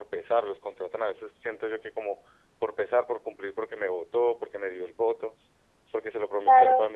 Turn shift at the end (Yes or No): Yes